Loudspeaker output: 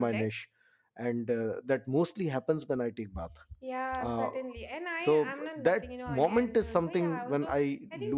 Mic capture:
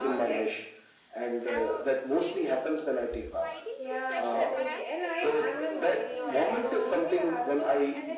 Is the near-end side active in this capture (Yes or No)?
Yes